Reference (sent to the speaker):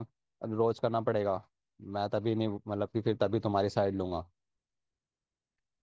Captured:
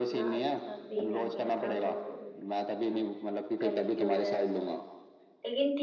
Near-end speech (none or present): present